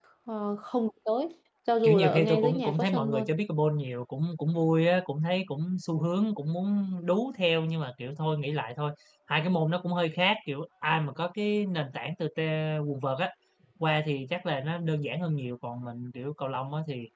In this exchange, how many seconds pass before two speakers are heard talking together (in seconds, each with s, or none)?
1.8 s